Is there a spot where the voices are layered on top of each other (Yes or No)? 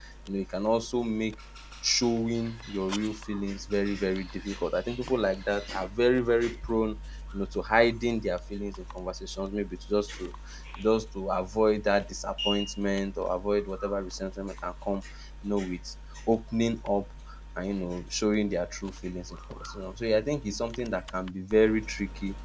No